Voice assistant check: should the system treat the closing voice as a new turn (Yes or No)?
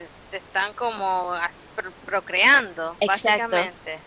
Yes